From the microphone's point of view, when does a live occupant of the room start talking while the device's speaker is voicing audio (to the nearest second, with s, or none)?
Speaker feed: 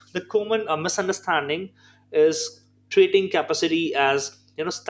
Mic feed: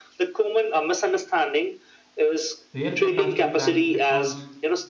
3 s